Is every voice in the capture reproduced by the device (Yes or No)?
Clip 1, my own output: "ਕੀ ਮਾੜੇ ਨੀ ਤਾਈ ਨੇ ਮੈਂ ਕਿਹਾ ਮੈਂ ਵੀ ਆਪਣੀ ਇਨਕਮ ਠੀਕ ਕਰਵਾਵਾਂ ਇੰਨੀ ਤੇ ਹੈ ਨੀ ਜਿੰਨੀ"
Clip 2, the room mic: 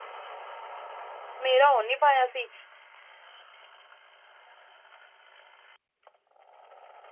No